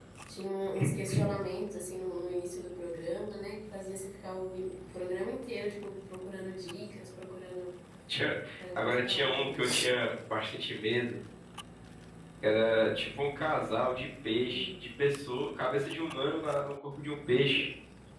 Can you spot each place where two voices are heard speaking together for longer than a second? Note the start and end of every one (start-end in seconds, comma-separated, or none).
8.6-9.8